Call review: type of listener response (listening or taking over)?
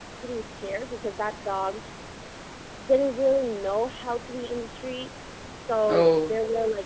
listening